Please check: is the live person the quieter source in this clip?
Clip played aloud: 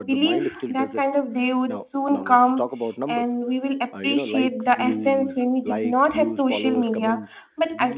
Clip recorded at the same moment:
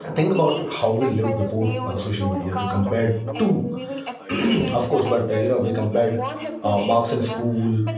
No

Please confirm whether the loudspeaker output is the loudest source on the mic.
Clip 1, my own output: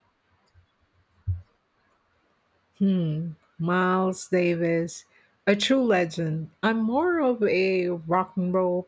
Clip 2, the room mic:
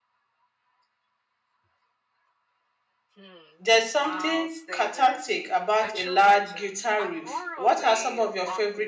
No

